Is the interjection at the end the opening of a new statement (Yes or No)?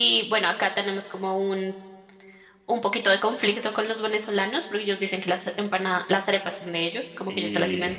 No